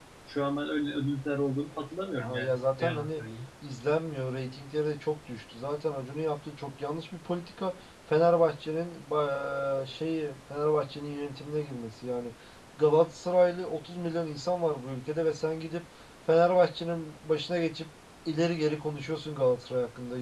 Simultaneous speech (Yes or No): Yes